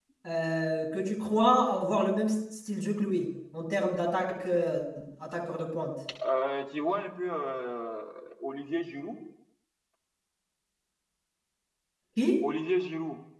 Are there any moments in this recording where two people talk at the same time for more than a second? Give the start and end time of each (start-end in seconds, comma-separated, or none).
none